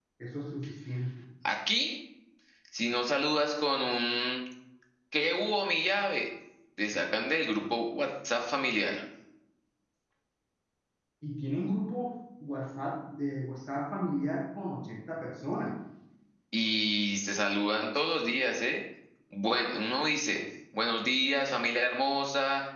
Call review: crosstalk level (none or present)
none